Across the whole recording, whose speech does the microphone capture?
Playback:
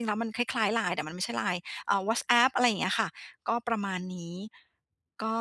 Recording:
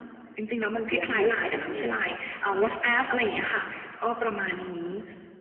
both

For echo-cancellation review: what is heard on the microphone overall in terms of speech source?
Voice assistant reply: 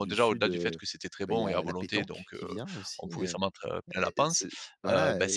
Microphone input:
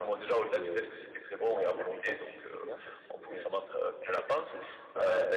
echo only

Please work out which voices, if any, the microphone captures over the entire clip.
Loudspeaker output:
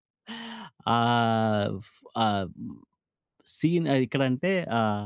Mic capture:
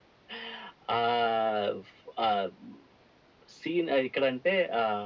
echo only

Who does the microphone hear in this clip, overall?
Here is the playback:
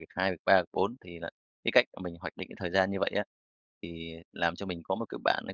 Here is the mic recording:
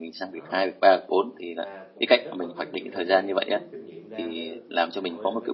both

